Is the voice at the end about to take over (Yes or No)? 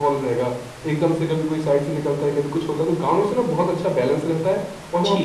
Yes